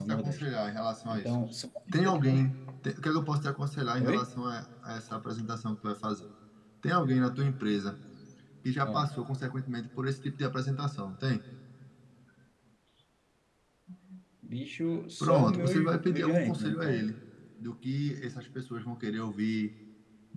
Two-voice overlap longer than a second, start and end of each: 15.2-17.1

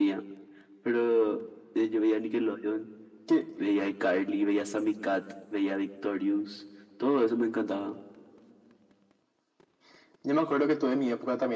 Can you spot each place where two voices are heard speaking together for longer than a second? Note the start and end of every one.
none

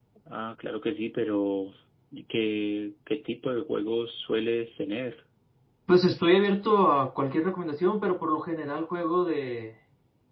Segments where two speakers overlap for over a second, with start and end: none

